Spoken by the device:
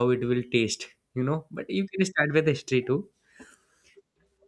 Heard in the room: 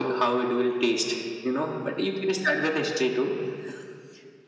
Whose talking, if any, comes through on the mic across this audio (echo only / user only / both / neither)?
echo only